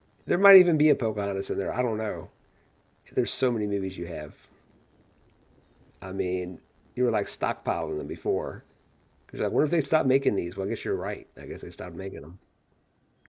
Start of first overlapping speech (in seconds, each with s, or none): none